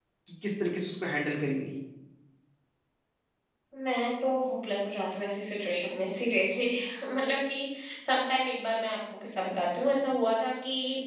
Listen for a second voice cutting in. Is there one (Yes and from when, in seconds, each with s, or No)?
No